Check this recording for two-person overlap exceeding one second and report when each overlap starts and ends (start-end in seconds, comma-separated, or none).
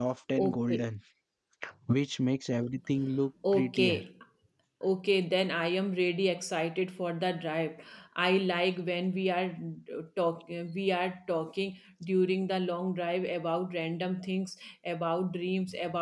none